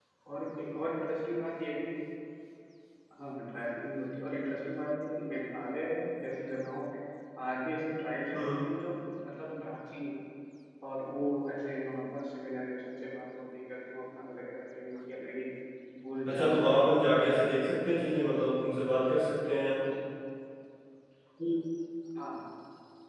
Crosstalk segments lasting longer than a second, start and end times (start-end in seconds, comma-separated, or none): 16.2-18.1